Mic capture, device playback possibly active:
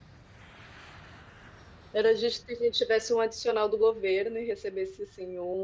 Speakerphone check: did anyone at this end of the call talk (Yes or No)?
Yes